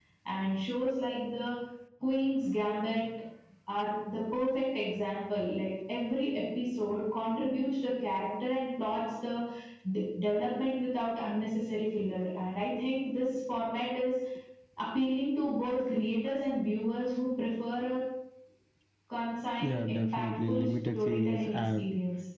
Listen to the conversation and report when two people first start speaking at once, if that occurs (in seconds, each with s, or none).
19.6 s